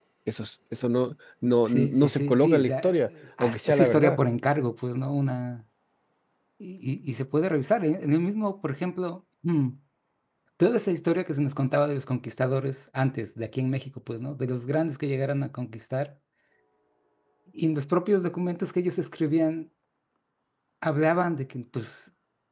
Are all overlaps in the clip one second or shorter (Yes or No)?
No